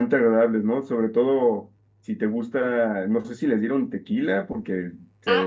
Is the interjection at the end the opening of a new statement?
Yes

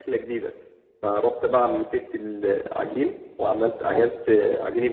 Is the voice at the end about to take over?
No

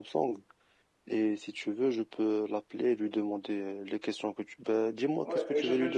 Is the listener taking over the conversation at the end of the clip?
Yes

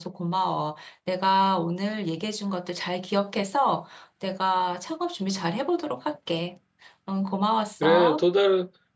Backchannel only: No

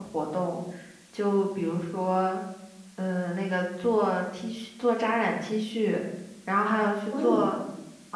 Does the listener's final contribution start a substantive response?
No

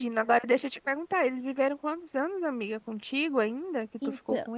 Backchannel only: No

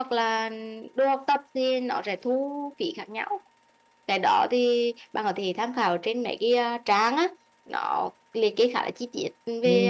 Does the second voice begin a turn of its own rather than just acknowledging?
Yes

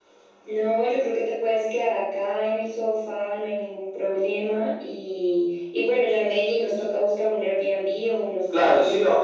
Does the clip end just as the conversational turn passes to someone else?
Yes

